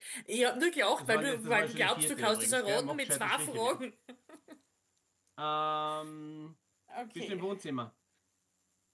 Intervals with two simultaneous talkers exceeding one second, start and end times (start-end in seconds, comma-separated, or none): 1.0-3.8